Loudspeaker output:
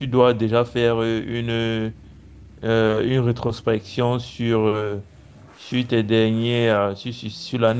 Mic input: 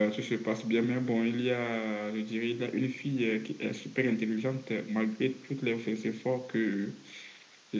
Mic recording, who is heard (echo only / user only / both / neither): user only